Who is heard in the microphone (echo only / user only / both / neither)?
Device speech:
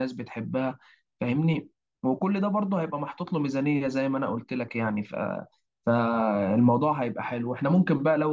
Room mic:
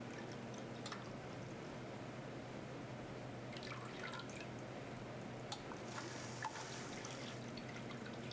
neither